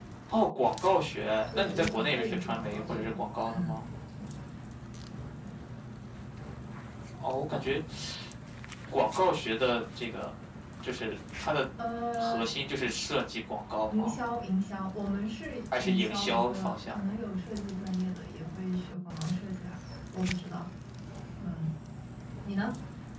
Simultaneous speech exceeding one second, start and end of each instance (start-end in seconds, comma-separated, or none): 1.5-3.2, 15.7-17.0